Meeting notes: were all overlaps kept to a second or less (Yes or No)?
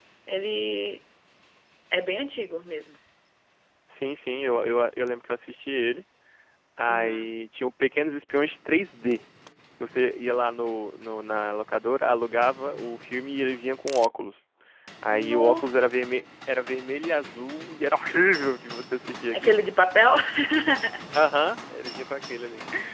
Yes